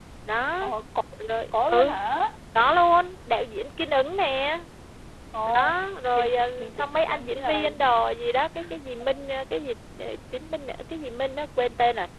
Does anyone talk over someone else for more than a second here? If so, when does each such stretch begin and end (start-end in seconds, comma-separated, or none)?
6.1-7.6